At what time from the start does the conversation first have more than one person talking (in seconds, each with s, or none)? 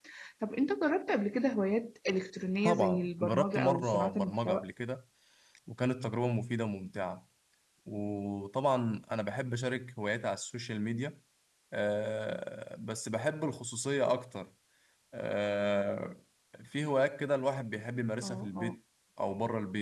2.6 s